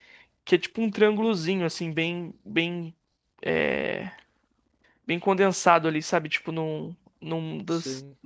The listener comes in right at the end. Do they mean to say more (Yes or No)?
No